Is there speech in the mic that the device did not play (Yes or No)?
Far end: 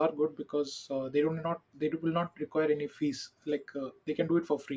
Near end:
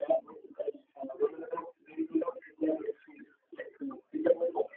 No